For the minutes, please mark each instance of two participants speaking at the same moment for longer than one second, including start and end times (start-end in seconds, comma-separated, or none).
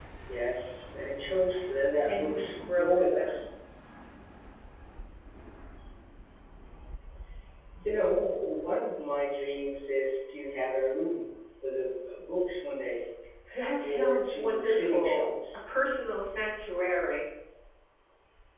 2.1-3.5, 13.8-15.6